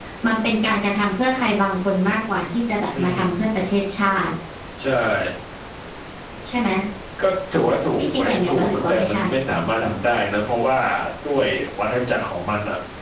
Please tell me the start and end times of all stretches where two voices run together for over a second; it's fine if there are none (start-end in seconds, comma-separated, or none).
8.0-9.2